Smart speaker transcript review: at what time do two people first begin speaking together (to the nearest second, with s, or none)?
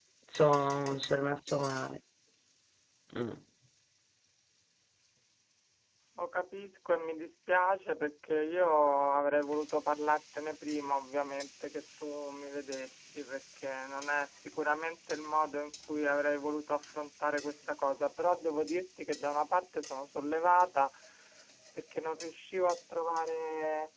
none